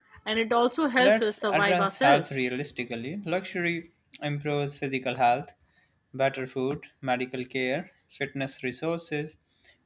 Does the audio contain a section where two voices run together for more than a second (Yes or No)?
Yes